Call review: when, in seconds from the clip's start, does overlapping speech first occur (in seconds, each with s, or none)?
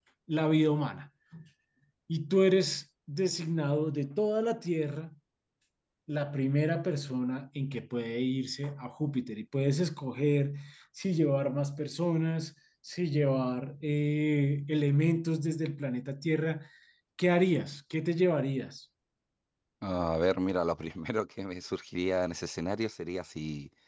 none